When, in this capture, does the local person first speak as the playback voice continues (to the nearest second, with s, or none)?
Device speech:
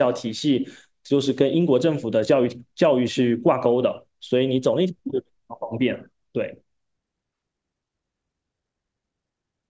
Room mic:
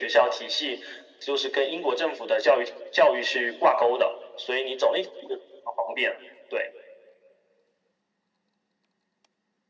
none